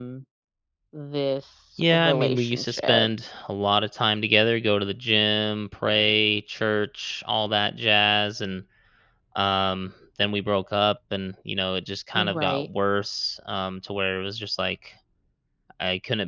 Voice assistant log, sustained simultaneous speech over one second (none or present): present